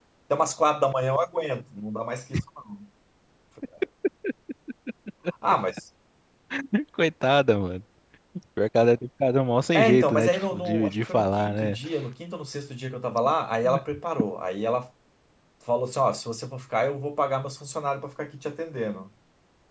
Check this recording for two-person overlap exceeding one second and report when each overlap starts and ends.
9.7-11.8

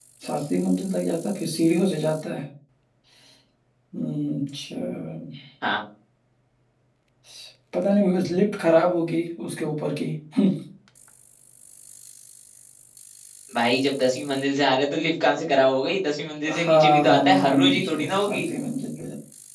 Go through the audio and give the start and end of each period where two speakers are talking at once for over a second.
16.5-18.4

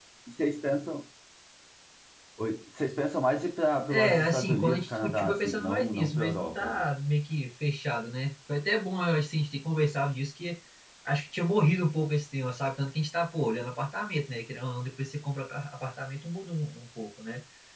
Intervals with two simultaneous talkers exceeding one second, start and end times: 3.9-6.8

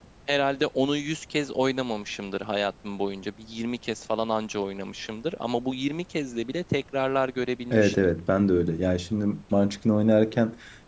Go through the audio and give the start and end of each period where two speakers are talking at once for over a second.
none

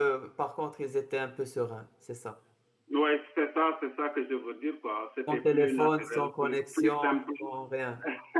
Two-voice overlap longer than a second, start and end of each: 5.3-7.0

